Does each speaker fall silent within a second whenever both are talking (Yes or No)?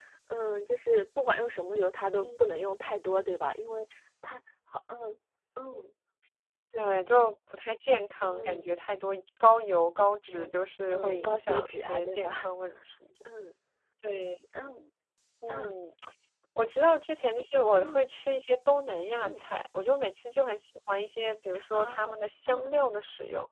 No